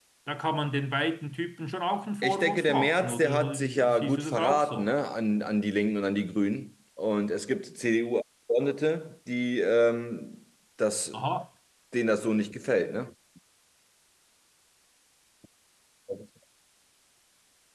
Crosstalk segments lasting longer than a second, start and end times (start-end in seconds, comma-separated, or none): 2.2-4.9